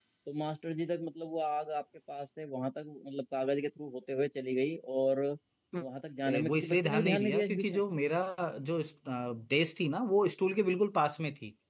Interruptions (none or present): present